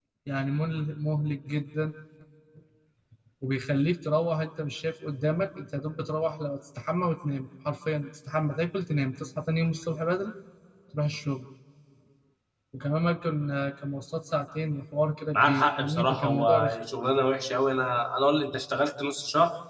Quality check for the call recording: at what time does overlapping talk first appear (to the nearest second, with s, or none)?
15 s